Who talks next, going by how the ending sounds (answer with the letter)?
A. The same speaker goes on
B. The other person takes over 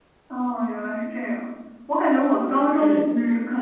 A